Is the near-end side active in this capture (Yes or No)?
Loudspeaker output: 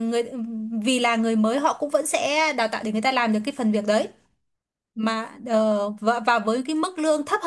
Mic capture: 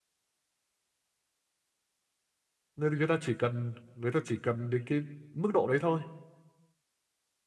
Yes